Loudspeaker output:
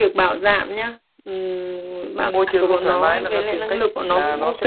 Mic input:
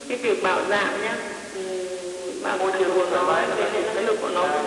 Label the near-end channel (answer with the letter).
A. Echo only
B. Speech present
A